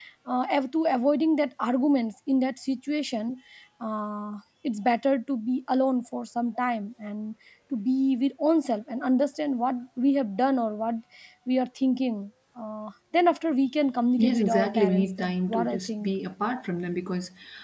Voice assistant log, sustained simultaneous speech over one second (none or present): present